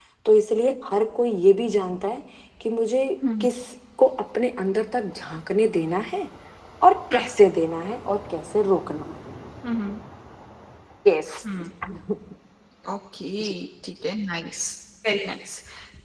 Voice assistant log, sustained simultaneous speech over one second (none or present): none